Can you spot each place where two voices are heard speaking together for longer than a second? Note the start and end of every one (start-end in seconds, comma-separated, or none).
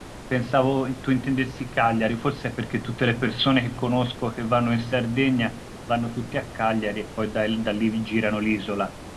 none